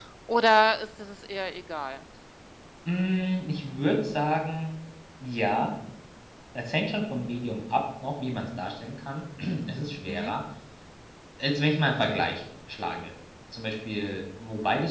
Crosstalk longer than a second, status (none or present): none